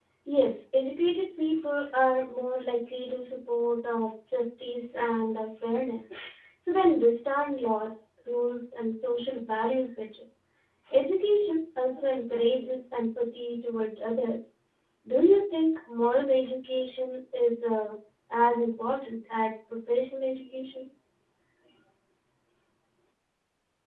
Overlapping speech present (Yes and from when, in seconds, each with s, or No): No